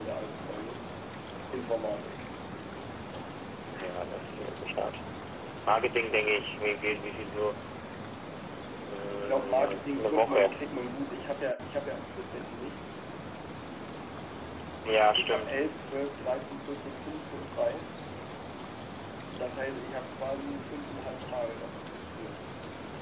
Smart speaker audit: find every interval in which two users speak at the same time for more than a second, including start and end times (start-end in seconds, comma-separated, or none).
9.2-10.6